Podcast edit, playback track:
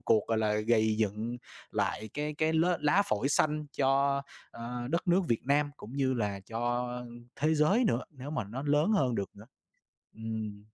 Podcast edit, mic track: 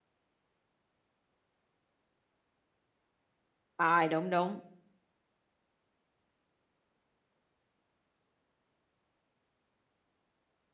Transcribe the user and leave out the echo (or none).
rồi, đúng, đúng.